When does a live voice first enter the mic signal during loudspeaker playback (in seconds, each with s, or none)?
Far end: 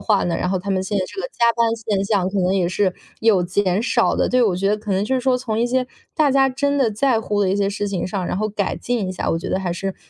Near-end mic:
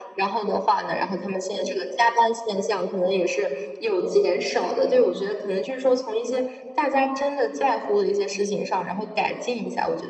none